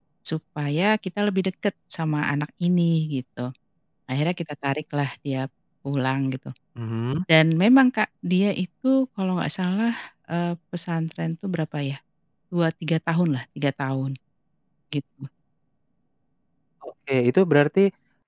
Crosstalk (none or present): none